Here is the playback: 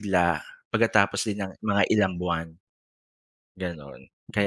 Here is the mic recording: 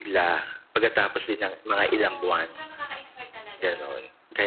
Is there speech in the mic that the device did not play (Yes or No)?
Yes